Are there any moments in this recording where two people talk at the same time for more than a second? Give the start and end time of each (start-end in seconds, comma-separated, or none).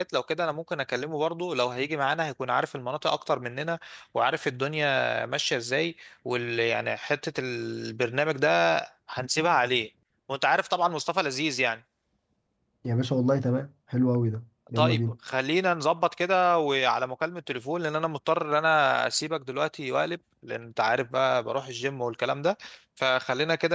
none